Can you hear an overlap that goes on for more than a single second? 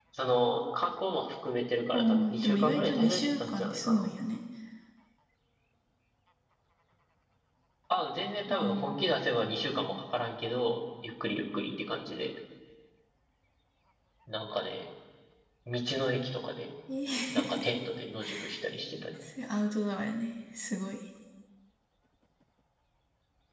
Yes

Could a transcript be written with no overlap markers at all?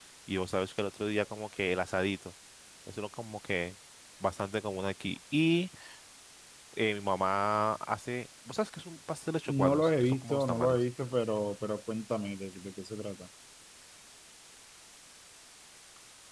No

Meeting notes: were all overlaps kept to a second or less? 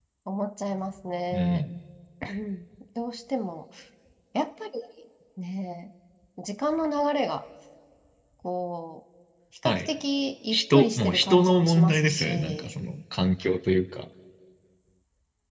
No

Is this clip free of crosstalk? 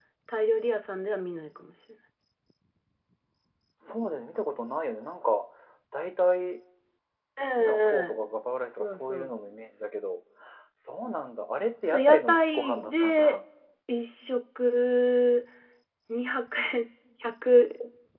No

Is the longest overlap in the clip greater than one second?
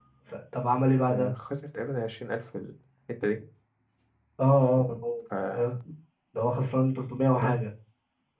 No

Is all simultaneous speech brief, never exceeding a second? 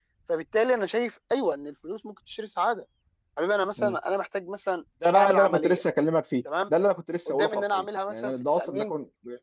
No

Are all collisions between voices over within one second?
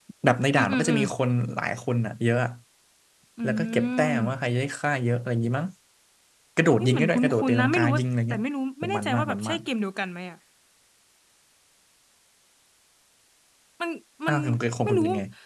No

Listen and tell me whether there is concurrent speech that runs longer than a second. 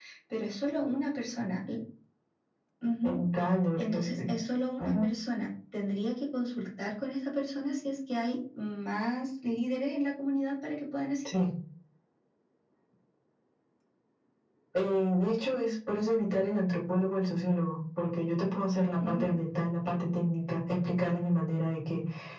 No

